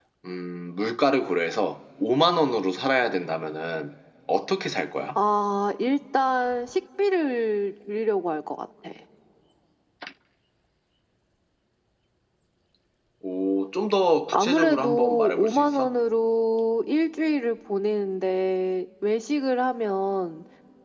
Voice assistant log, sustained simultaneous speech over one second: present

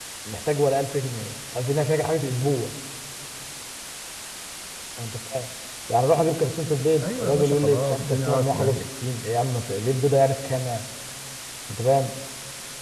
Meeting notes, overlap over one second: present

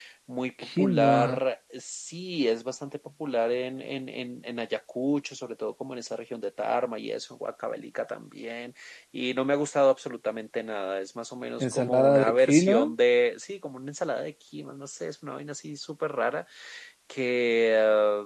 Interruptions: present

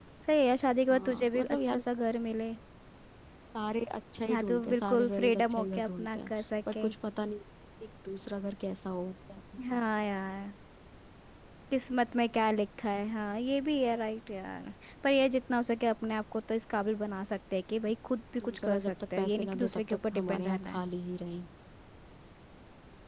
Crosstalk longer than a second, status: present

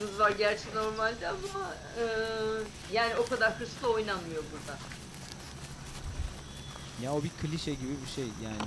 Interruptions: none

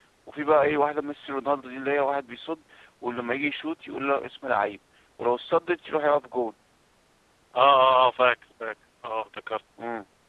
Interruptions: none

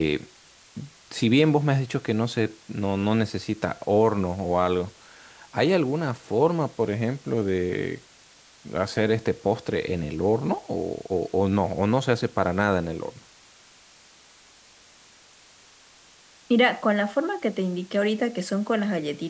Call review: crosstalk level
none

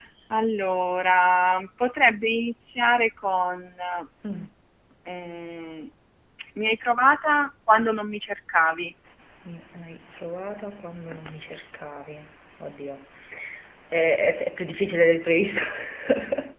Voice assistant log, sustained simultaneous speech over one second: none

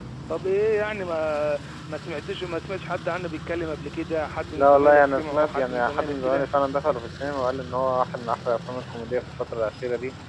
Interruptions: present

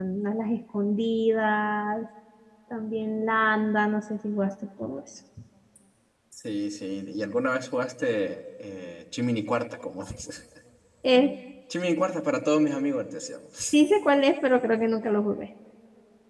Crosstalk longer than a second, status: none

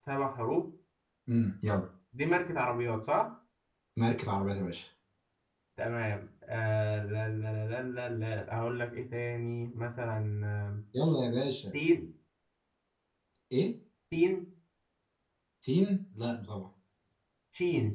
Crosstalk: none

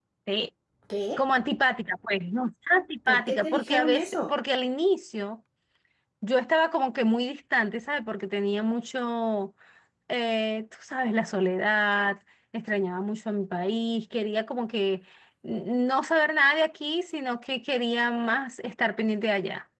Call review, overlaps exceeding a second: present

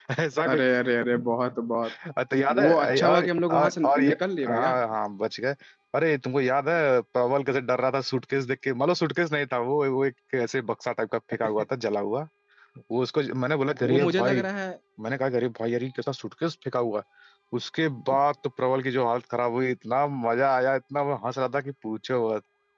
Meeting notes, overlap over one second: present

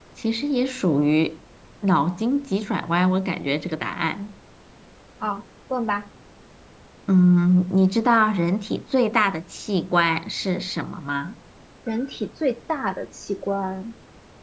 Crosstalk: none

